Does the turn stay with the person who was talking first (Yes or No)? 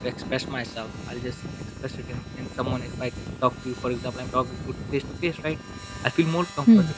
Yes